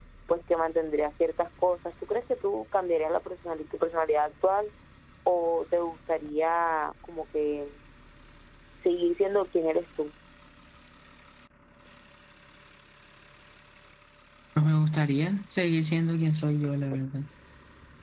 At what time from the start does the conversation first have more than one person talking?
none

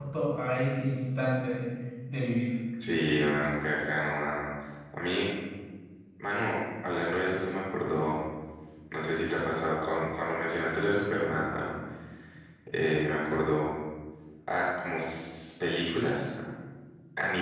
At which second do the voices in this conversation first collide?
none

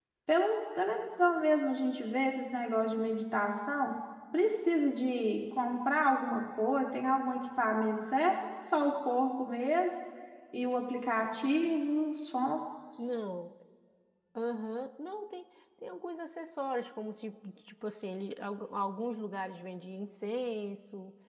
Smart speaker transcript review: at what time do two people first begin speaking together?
none

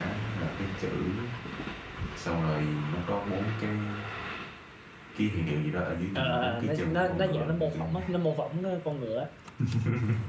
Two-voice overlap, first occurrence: 6 s

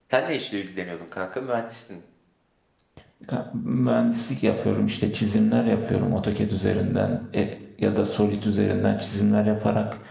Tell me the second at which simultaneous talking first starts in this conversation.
none

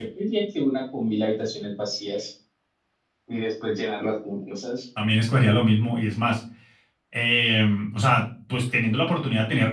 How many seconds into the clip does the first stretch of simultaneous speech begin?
none

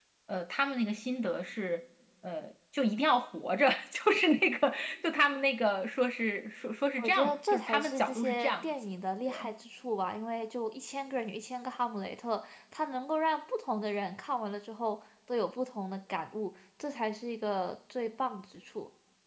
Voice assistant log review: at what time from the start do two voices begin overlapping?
7 s

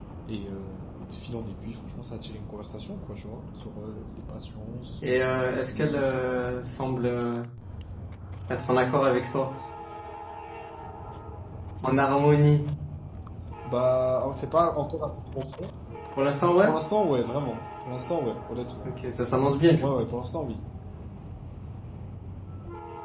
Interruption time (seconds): 5 s

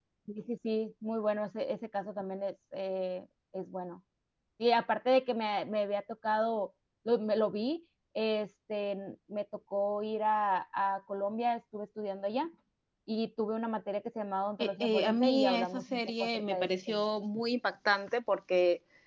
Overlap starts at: 15 s

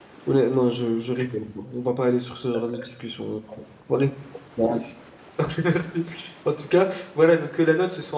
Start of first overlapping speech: none

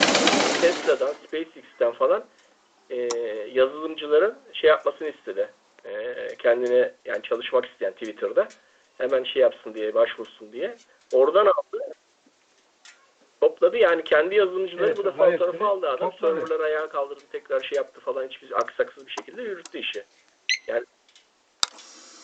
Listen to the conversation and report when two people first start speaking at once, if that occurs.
15 s

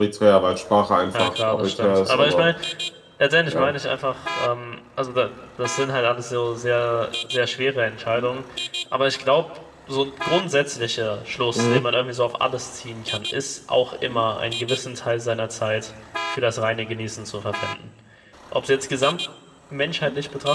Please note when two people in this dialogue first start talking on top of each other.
1 s

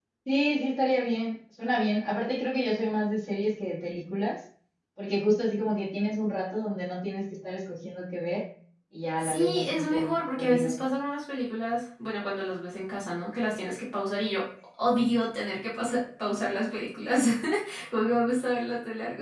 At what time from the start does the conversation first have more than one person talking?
9 s

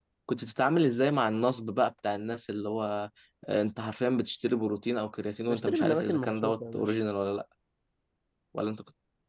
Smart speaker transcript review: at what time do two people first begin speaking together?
5 s

